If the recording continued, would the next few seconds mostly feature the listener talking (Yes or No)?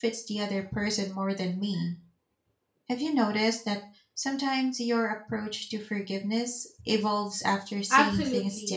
Yes